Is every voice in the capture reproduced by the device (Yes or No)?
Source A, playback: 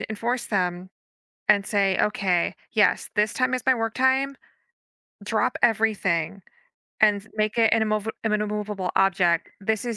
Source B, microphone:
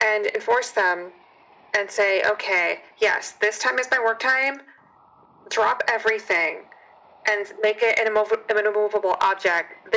Yes